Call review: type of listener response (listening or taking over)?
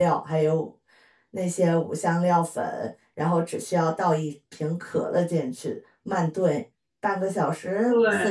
listening